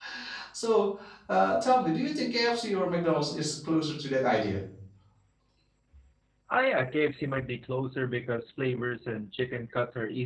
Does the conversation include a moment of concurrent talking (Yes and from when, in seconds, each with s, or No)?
No